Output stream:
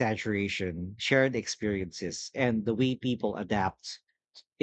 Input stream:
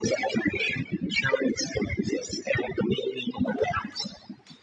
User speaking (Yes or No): No